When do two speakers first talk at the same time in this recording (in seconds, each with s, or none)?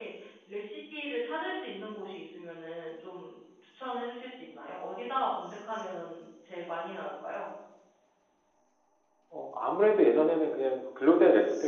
none